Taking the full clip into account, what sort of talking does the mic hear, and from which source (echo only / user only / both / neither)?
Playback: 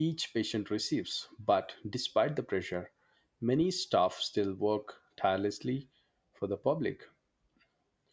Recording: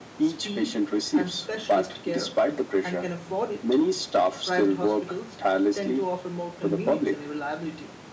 both